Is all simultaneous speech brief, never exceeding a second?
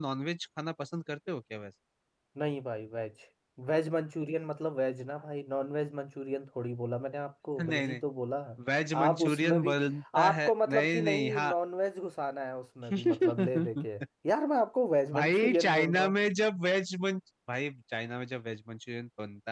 No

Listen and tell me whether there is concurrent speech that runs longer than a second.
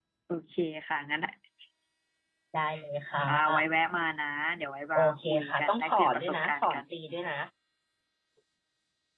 Yes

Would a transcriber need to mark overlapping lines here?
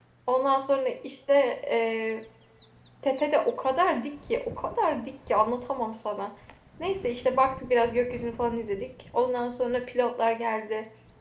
No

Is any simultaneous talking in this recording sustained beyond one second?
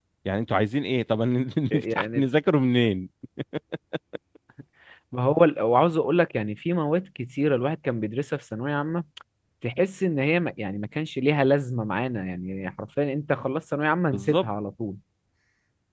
No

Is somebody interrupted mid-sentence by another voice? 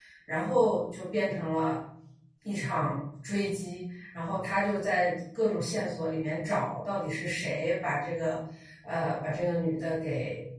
No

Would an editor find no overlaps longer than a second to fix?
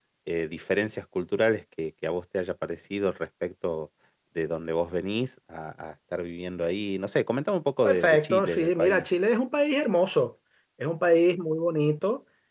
No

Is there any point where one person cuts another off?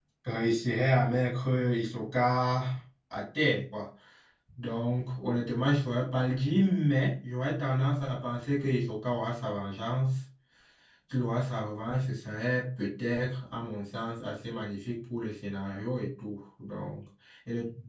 No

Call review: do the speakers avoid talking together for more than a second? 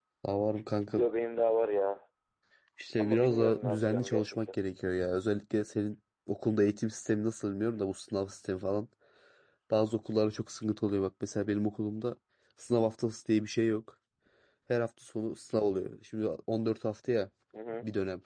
No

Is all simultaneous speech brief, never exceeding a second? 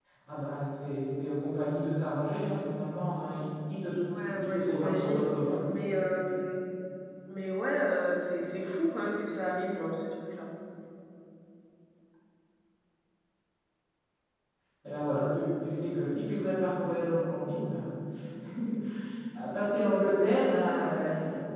No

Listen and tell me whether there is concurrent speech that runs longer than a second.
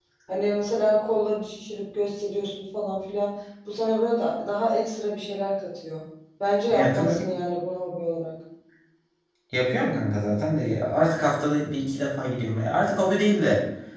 No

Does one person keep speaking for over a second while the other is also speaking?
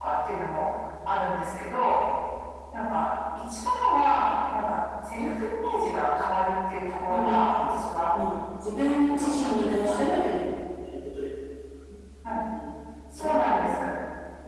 Yes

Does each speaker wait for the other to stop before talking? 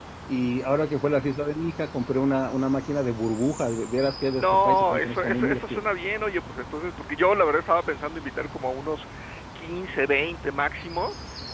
No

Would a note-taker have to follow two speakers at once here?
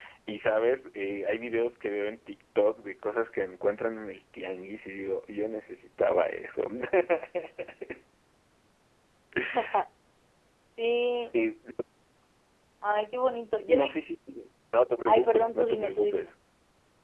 Yes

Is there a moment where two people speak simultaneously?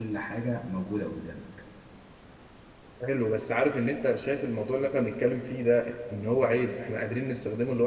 No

